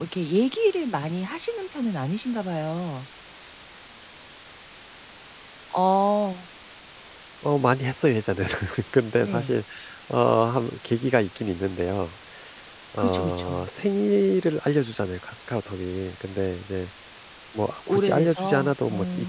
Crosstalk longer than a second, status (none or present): present